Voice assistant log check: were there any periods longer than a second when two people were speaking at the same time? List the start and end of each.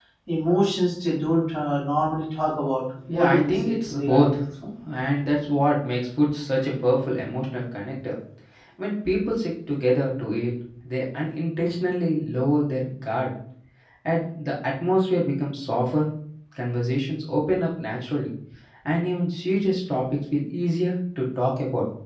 3.1-4.4

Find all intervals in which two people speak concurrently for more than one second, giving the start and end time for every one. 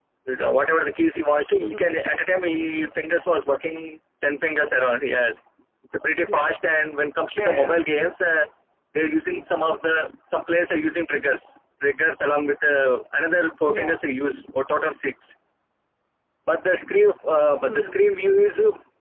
none

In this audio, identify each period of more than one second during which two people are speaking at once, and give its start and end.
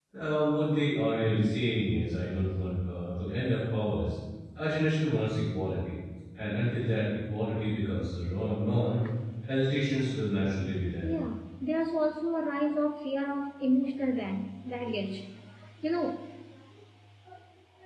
none

